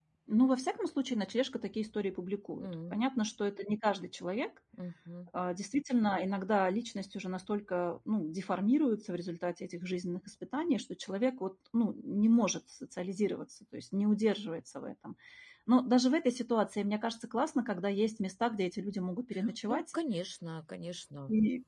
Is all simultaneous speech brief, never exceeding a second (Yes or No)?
Yes